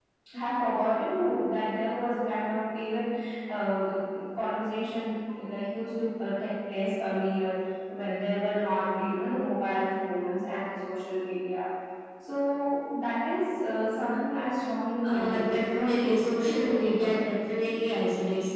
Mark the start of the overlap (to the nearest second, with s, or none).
15 s